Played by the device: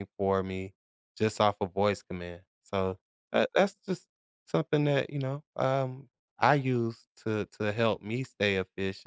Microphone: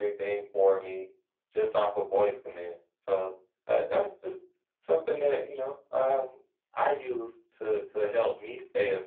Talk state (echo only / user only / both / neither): echo only